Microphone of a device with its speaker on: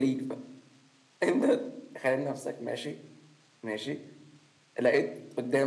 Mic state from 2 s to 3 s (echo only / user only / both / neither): echo only